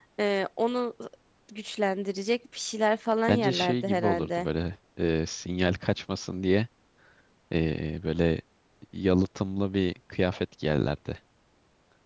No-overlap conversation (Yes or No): No